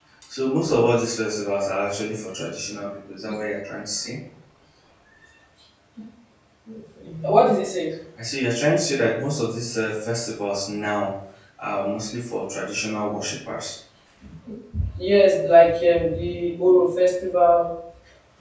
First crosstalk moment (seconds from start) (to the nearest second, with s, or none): none